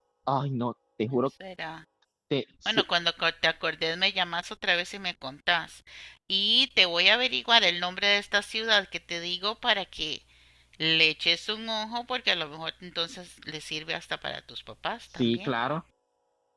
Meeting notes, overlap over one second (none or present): none